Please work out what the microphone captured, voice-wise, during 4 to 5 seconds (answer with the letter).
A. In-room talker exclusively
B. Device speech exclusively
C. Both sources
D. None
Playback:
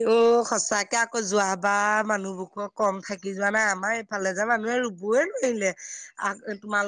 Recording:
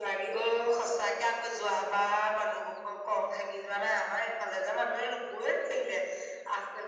B